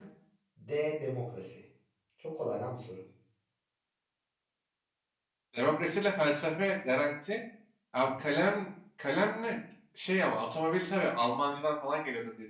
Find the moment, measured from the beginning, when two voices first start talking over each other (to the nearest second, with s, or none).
none